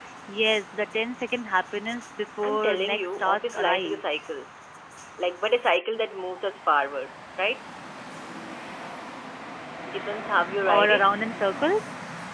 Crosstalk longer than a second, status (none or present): present